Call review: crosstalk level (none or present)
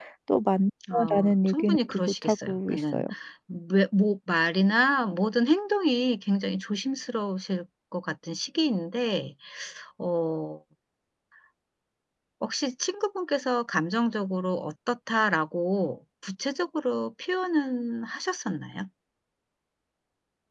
present